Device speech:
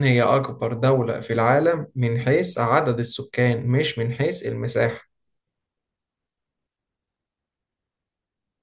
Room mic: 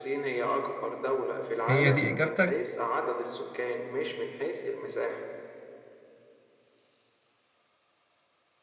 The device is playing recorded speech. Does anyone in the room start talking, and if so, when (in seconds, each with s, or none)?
1.6 s